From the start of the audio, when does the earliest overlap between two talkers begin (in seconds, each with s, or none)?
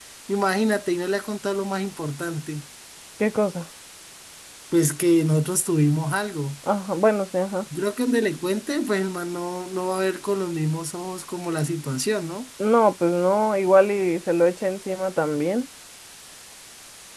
none